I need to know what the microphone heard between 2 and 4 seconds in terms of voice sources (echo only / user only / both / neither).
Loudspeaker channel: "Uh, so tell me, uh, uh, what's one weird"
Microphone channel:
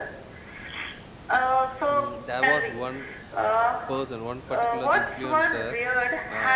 both